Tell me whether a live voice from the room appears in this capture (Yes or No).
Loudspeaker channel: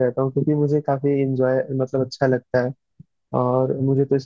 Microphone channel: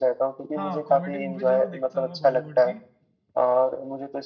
Yes